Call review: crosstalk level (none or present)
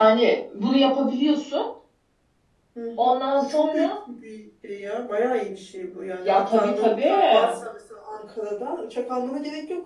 present